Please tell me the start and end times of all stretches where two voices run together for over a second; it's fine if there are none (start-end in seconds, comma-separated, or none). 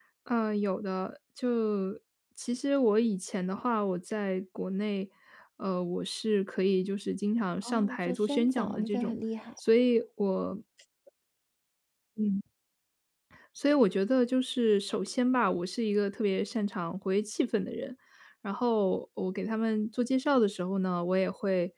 7.7-9.2